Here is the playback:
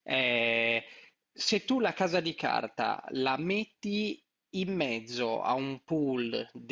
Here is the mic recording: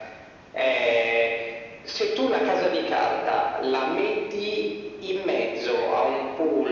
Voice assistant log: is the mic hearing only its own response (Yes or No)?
Yes